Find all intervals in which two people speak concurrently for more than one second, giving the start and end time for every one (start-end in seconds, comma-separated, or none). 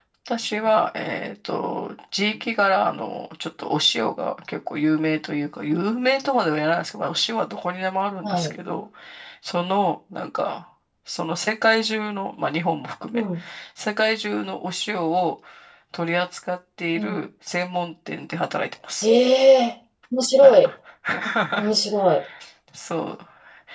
none